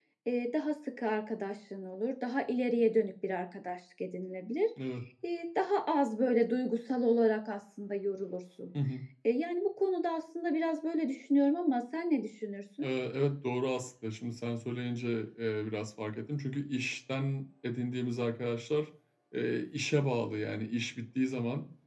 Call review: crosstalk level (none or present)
none